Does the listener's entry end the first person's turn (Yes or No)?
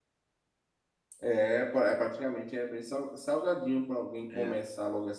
No